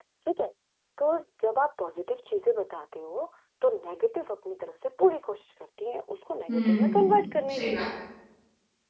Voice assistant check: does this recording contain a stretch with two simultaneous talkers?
Yes, from 6.5 s

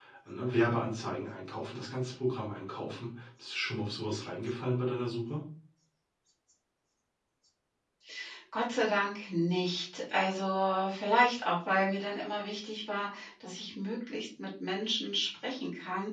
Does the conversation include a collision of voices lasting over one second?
No

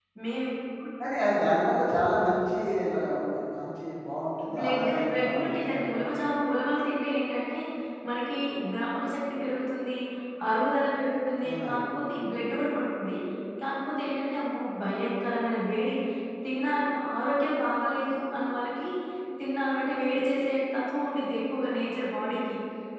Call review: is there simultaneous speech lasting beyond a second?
Yes, from 4.6 s

